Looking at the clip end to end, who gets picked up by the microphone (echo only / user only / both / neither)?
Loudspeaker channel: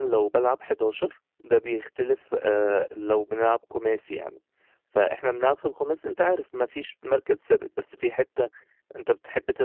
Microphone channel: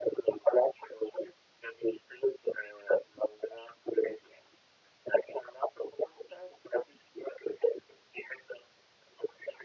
echo only